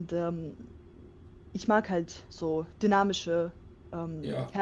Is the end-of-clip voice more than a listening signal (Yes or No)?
Yes